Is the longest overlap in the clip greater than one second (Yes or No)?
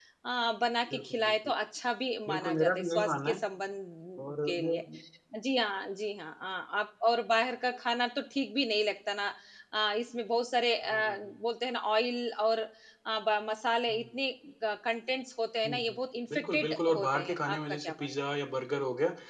Yes